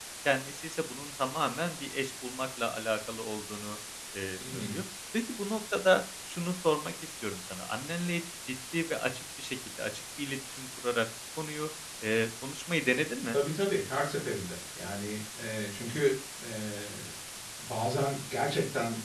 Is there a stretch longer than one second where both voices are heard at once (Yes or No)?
No